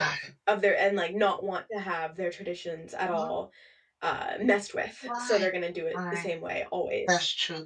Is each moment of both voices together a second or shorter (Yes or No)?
Yes